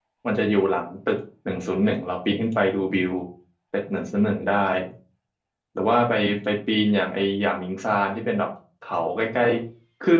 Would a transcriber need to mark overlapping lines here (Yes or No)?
No